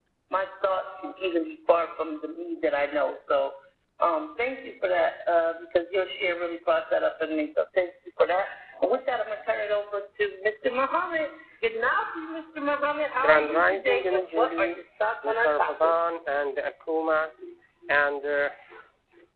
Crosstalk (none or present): present